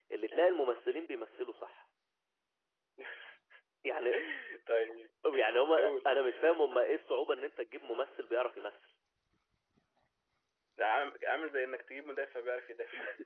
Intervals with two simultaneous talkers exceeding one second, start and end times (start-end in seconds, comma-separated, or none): none